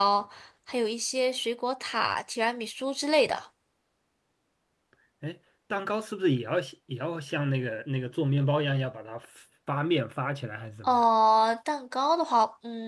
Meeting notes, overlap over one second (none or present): none